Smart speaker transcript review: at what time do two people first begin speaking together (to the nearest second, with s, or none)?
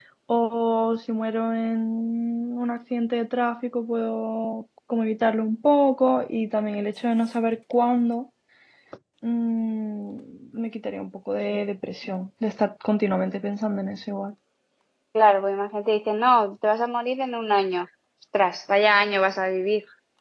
none